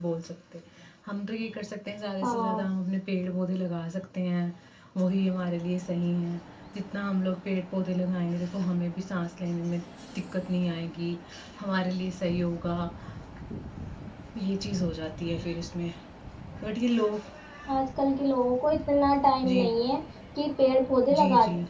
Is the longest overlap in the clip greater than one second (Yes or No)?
No